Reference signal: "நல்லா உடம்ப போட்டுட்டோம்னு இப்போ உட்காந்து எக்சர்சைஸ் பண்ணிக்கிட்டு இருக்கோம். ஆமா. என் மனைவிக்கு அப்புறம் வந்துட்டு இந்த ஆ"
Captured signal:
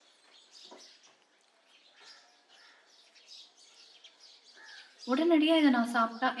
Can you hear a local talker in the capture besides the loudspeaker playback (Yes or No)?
Yes